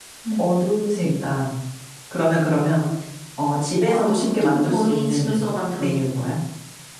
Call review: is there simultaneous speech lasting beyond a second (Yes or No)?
Yes